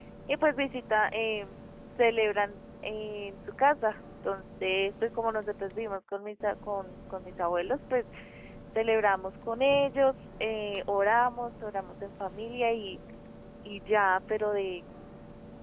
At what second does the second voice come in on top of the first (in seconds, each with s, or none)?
none